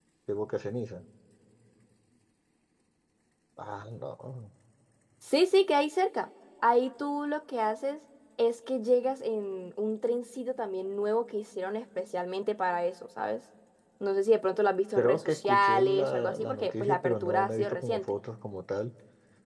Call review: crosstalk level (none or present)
present